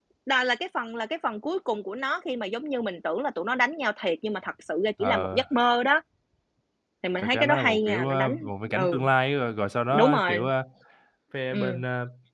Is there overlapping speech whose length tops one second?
Yes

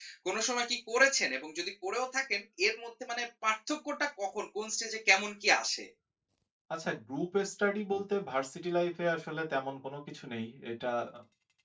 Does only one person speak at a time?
Yes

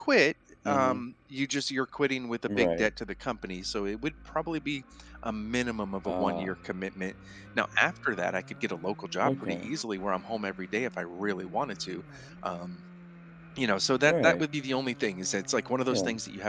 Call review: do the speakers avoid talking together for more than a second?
Yes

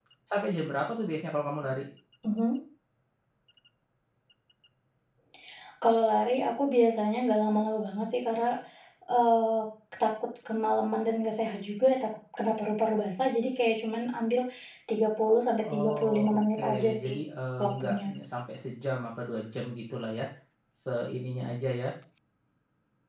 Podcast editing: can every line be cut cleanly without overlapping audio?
No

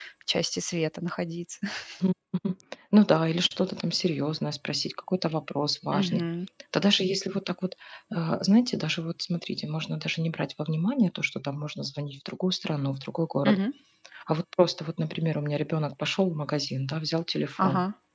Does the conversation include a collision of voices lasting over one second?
No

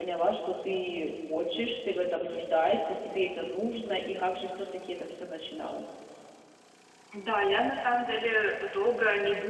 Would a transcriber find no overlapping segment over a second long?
Yes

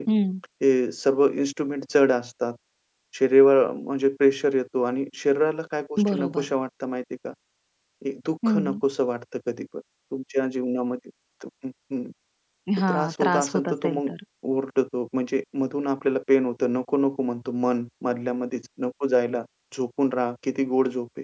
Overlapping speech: Yes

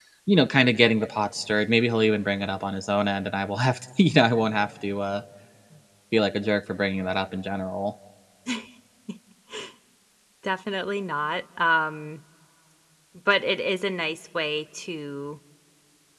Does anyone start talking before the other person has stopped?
No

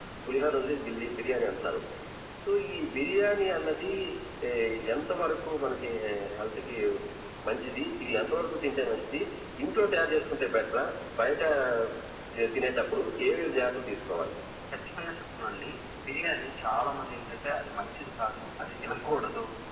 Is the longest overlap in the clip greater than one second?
No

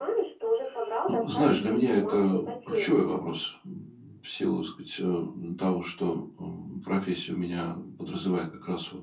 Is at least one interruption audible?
Yes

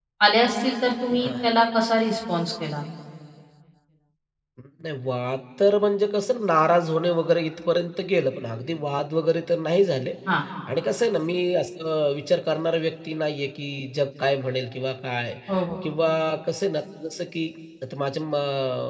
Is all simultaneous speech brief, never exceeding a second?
Yes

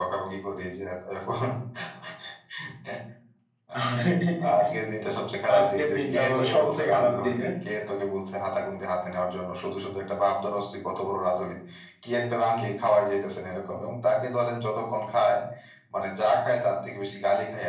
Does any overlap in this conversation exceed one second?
Yes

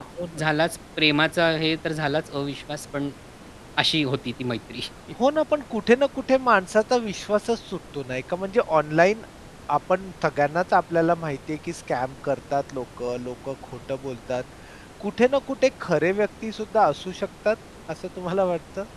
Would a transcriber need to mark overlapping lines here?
No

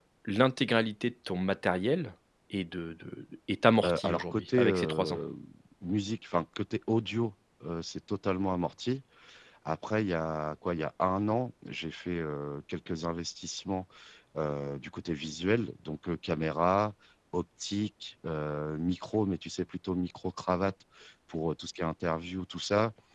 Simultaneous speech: Yes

